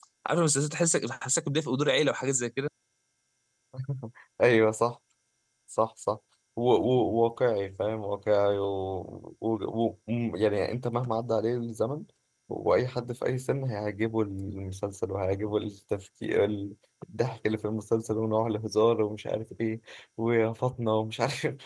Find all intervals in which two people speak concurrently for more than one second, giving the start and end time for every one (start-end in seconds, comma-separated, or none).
none